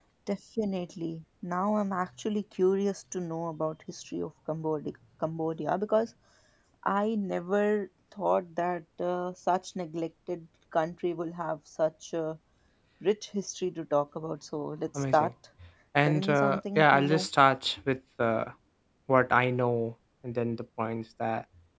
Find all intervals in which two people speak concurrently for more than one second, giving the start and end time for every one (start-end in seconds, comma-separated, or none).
16.1-17.3